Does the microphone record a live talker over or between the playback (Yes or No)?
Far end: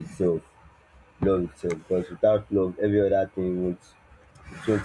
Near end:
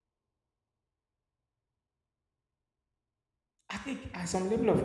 Yes